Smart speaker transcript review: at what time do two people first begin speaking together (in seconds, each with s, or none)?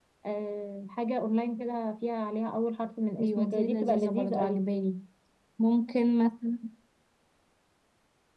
3.2 s